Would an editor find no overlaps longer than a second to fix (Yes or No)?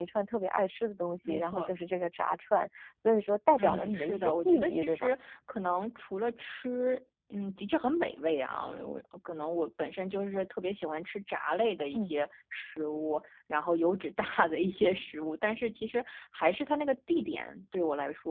No